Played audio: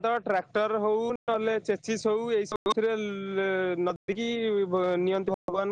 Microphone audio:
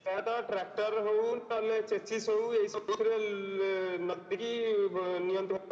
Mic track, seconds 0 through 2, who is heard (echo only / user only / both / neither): echo only